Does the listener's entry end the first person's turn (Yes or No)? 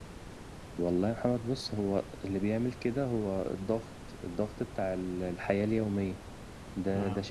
No